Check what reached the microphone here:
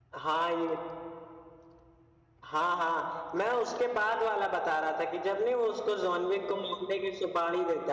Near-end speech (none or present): none